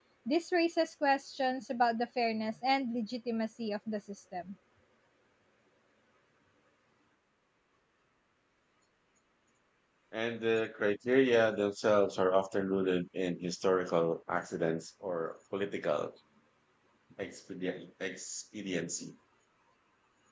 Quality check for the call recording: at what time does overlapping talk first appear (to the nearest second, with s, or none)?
none